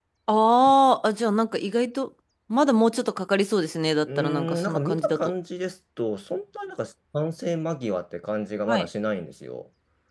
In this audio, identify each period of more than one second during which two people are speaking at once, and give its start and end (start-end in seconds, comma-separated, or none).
4.1-5.3